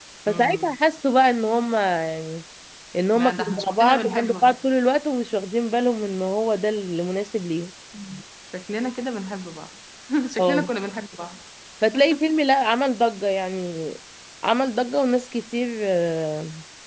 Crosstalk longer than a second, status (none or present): present